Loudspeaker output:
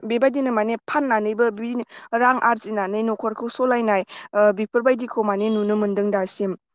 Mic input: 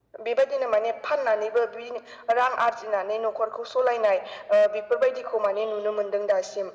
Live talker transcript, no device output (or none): none